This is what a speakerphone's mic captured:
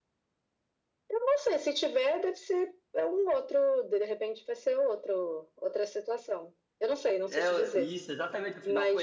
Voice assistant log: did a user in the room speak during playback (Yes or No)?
Yes